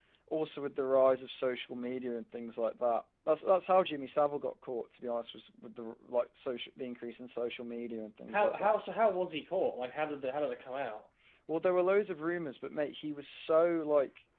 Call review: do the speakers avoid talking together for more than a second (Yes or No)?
Yes